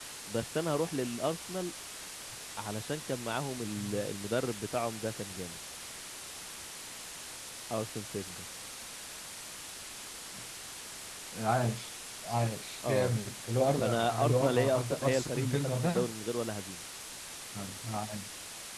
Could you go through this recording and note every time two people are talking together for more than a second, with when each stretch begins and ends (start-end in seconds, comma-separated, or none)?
13.8-16.1